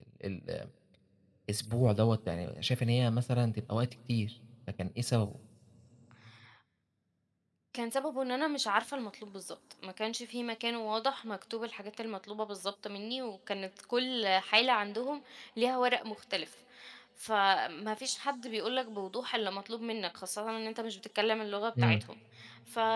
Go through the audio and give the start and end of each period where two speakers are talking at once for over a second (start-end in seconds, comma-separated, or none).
none